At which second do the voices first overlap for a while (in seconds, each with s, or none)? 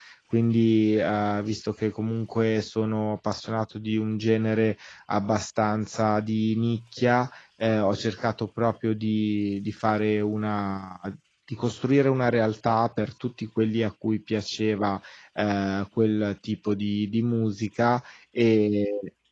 none